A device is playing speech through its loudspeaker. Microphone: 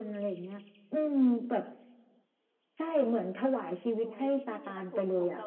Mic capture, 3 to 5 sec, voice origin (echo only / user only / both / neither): both